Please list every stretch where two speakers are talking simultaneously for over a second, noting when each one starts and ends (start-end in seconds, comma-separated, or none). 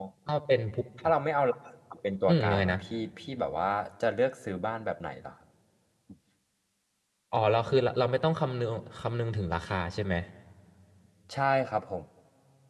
none